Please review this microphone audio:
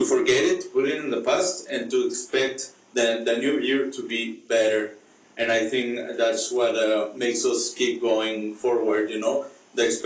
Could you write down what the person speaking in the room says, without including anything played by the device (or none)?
none